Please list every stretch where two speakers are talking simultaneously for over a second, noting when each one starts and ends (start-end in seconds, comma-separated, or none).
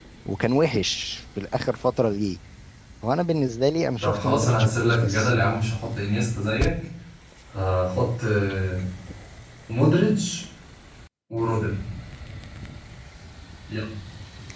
4.0-5.3